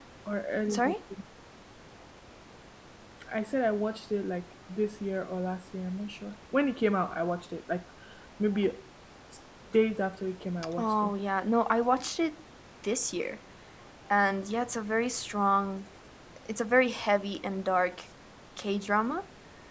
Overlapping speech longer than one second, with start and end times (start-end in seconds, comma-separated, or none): none